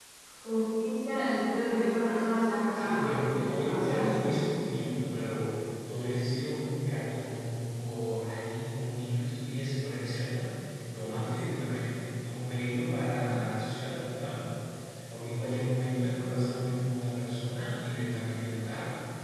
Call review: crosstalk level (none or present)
present